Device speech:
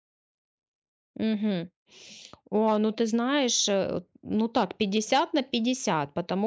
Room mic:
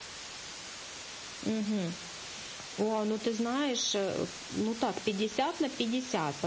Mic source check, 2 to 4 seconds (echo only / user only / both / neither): echo only